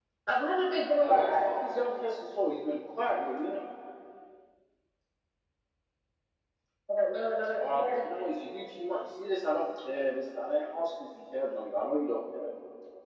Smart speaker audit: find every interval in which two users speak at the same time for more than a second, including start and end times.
none

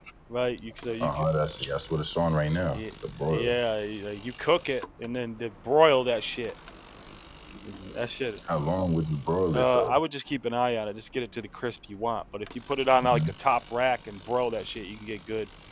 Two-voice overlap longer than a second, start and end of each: none

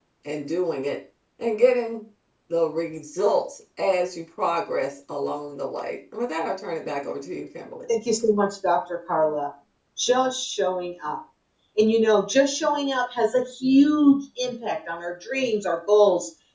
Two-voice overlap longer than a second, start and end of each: none

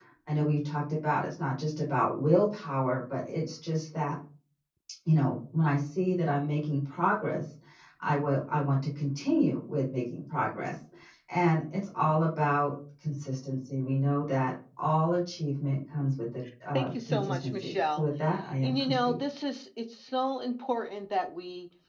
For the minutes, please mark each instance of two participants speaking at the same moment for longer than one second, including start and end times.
16.7-18.1

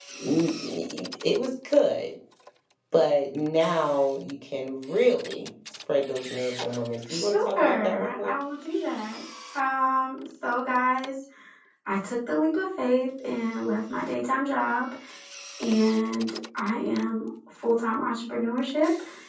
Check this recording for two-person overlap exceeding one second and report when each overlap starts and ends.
7.1-8.3

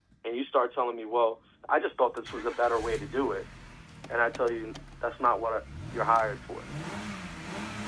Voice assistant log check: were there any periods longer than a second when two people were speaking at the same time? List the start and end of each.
none

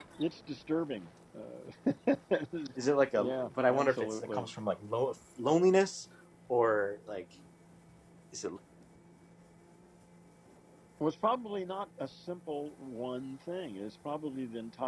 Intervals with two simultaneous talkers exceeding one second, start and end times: 3.2-4.4

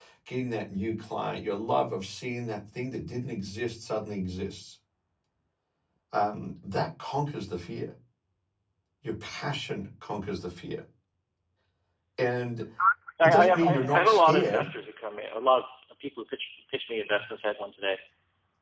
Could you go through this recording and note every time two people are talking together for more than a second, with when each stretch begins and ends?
13.2-14.7

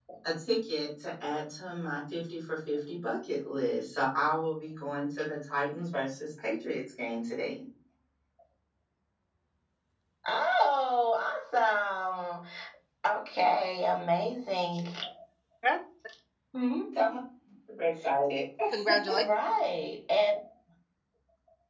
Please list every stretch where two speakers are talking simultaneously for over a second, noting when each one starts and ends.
none

